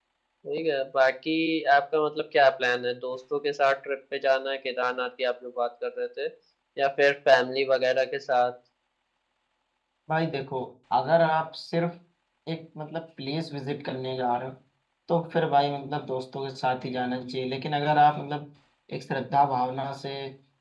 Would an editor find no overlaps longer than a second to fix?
Yes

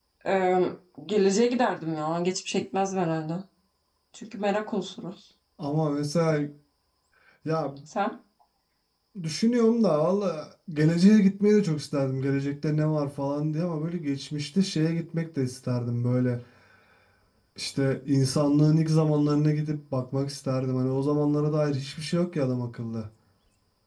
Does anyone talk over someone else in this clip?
No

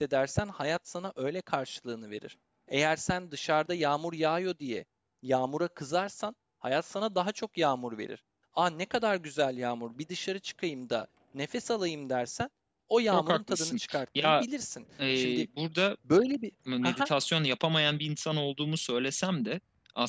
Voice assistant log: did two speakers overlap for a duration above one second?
Yes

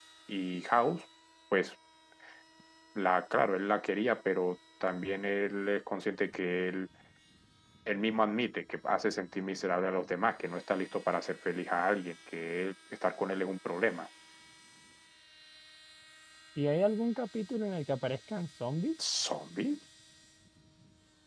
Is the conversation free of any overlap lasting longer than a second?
Yes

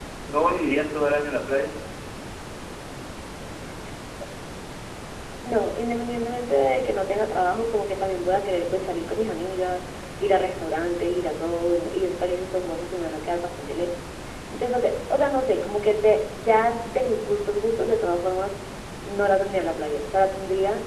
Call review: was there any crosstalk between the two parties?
No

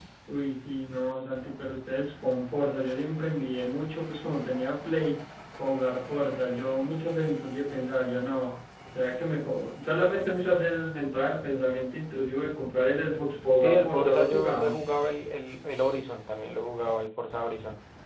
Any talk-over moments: Yes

